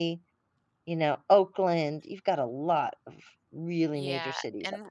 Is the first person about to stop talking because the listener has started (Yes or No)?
Yes